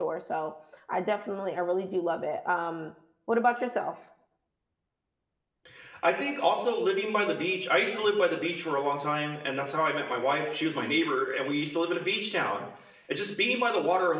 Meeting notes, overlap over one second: none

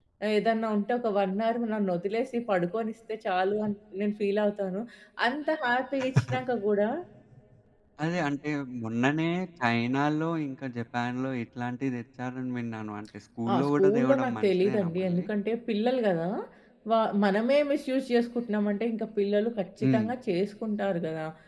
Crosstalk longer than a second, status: present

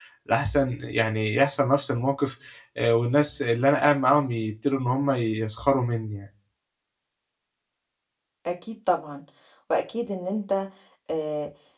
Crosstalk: none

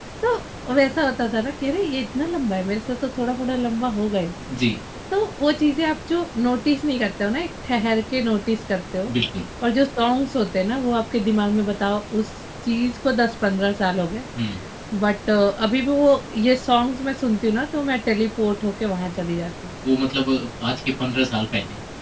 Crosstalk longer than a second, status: none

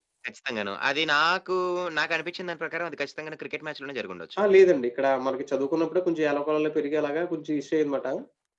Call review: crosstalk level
none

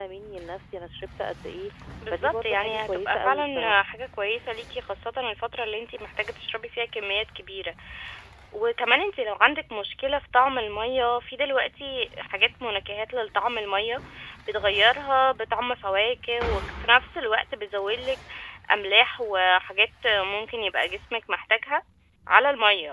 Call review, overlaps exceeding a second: present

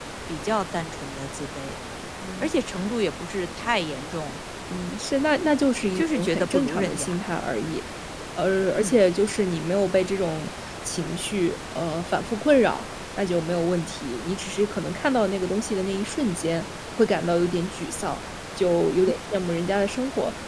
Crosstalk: present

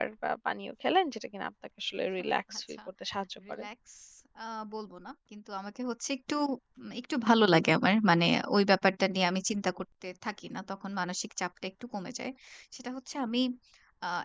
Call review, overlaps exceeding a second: none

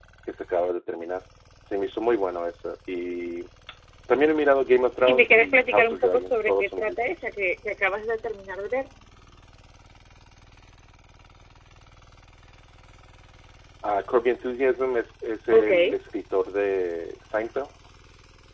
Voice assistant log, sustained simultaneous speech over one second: present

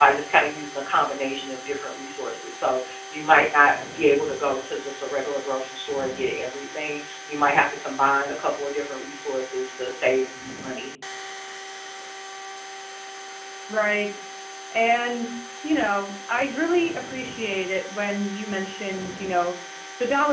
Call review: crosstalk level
none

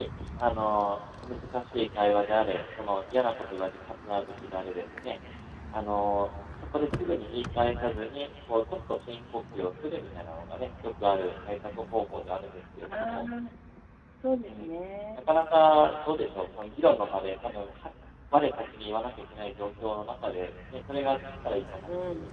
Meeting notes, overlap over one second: none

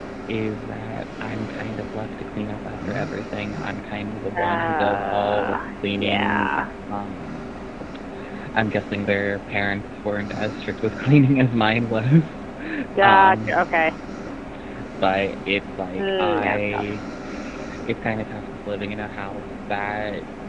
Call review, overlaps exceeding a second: present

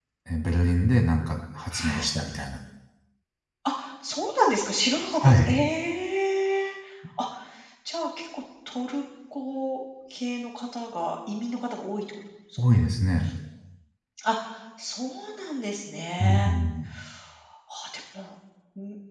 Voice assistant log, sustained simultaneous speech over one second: none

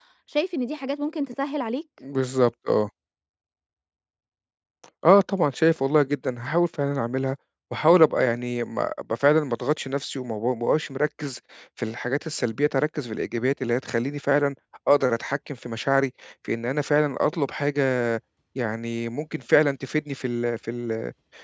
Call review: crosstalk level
none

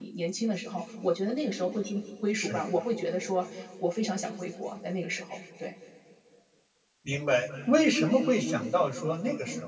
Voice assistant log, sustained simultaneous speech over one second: none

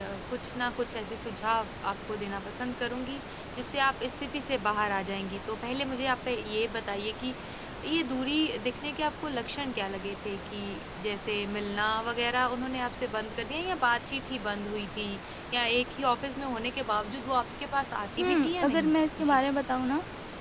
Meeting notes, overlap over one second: present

